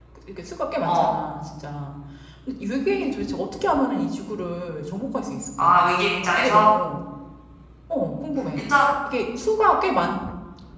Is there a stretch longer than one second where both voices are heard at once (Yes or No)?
No